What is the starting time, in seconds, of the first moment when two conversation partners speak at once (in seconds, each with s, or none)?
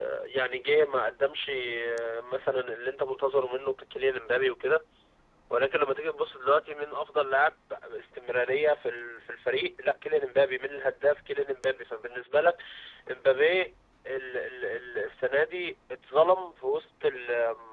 none